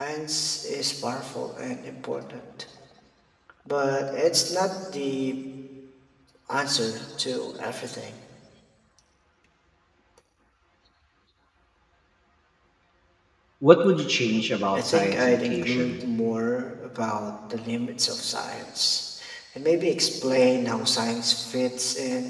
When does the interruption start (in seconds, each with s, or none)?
14.7 s